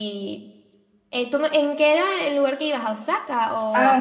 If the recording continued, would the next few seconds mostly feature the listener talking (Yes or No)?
Yes